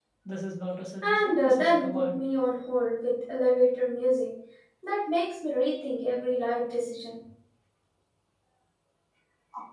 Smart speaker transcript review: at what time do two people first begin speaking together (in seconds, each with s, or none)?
1.0 s